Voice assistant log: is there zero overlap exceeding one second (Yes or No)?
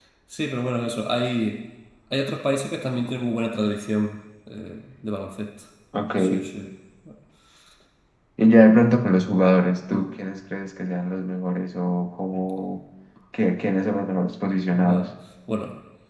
Yes